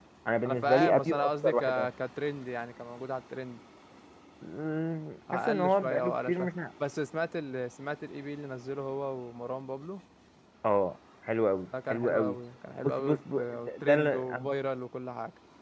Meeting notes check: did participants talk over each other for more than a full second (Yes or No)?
Yes